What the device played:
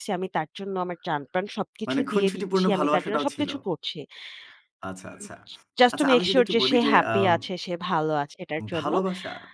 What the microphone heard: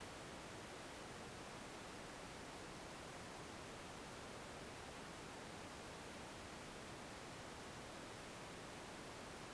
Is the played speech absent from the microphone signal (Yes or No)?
Yes